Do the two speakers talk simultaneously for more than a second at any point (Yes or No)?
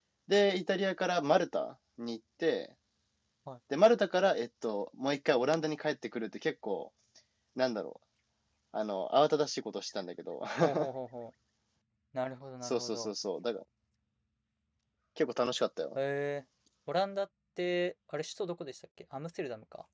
No